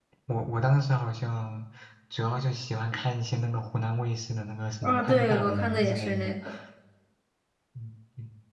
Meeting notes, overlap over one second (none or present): present